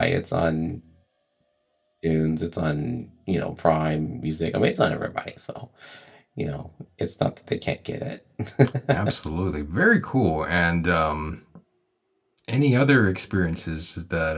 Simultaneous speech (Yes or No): No